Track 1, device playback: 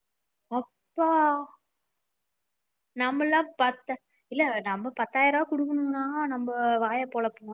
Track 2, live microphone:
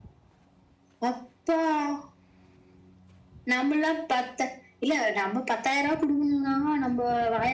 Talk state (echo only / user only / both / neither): echo only